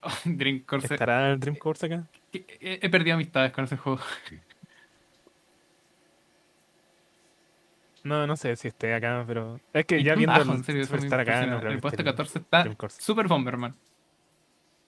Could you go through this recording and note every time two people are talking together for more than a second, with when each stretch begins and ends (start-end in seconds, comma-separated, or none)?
10.0-12.2